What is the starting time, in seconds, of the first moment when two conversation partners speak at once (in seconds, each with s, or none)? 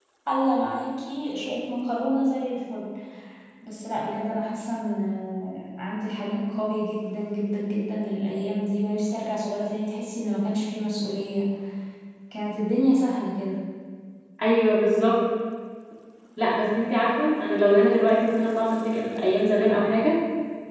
none